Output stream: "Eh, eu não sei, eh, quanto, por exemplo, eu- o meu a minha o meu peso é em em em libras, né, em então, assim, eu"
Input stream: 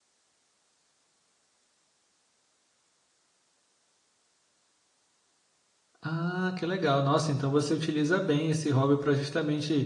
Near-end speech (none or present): present